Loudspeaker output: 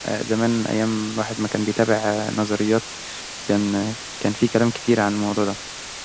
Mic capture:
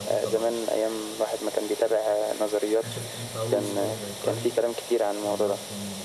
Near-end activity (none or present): present